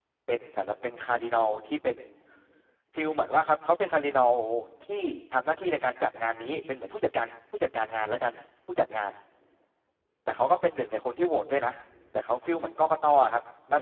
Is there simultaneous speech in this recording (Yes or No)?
No